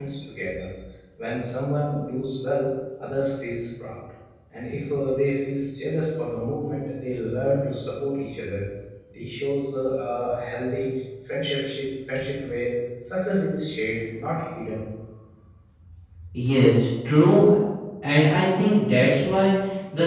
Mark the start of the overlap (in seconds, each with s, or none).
none